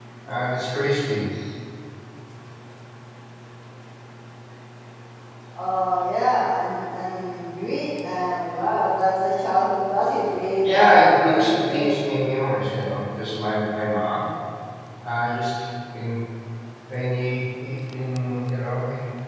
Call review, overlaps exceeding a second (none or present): present